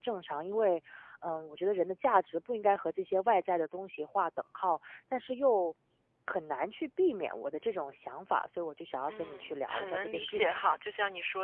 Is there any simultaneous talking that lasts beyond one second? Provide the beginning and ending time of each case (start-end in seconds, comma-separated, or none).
9.1-10.6